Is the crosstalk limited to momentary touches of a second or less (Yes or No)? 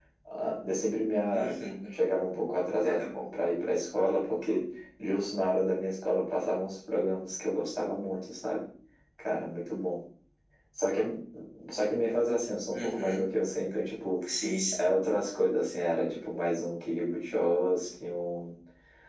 Yes